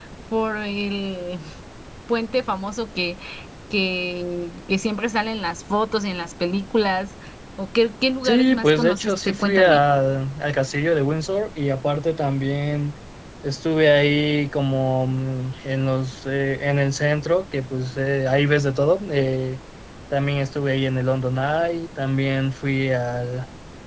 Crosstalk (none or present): present